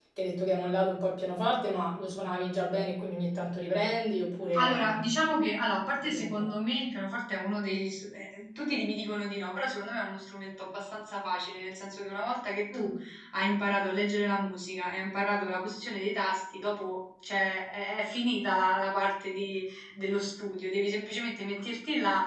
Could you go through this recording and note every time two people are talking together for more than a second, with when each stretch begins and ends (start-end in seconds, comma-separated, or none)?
none